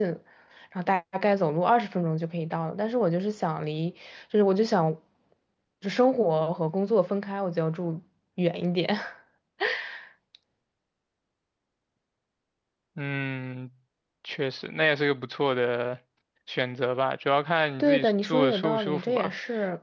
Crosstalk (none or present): present